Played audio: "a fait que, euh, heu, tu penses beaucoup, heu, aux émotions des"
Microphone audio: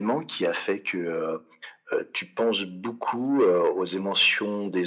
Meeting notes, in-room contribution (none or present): none